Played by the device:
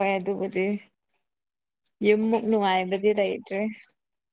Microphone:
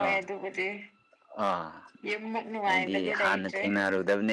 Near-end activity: present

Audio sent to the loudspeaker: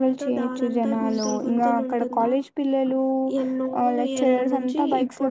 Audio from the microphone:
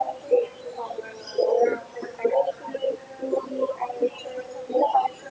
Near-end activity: none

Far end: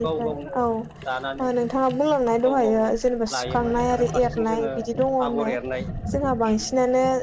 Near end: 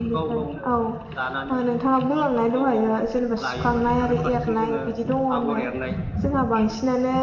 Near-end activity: none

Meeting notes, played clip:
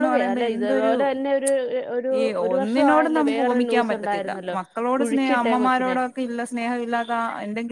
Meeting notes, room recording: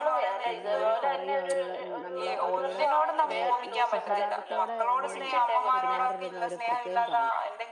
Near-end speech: present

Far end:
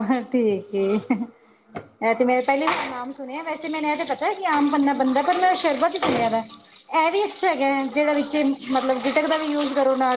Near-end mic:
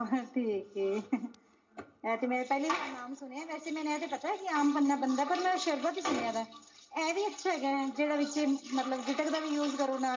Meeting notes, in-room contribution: none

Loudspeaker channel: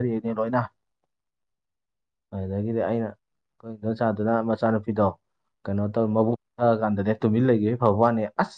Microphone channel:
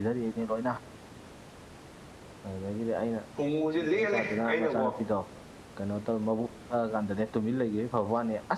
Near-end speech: present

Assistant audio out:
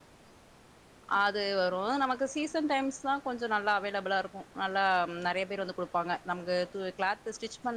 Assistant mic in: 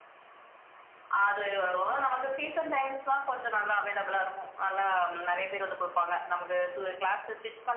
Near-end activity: none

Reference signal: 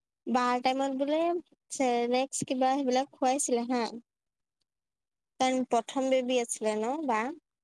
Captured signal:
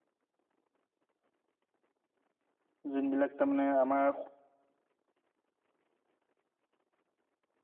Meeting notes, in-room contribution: present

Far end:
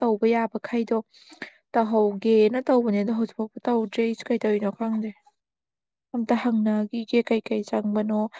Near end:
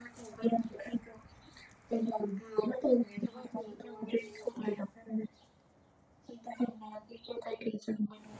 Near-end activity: present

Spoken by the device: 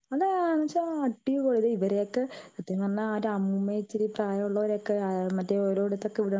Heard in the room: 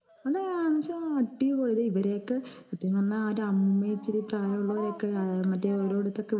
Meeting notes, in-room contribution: present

